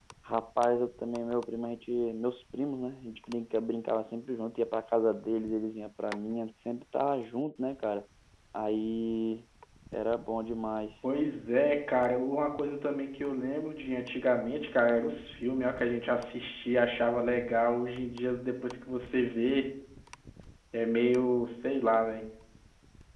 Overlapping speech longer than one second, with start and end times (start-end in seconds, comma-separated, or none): none